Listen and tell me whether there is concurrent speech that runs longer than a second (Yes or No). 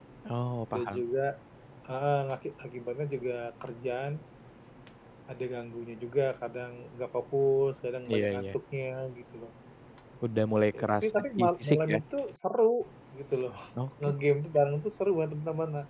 Yes